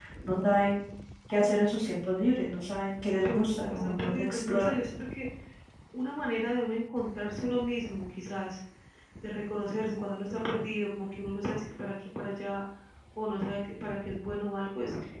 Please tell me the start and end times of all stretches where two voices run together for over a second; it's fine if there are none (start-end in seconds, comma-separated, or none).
3.2-4.8